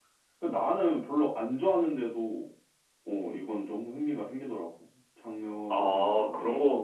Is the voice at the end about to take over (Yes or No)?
Yes